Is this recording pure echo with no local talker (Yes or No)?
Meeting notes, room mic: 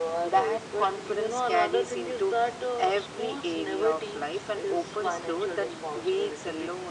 Yes